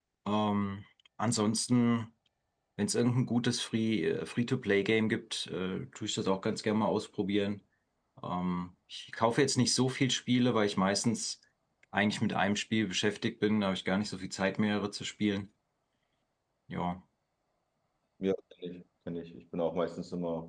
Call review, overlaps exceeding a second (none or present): none